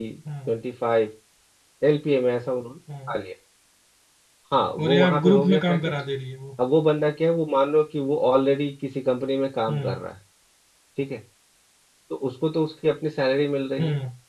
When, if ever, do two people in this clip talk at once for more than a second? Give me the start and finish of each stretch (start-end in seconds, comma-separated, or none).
4.8-6.0